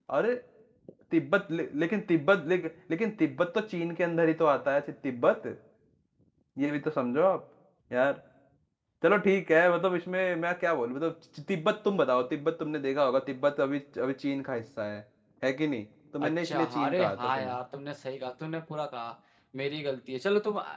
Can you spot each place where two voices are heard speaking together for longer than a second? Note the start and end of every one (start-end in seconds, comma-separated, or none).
16.2-17.6